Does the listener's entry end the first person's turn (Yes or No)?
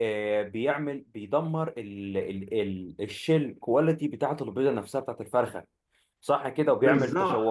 No